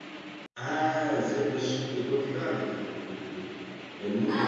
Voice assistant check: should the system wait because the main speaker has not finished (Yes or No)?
No